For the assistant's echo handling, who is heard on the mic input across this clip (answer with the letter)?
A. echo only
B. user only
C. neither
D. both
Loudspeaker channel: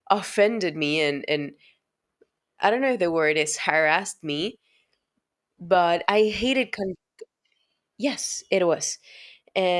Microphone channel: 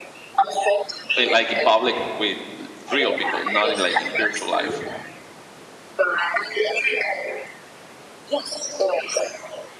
D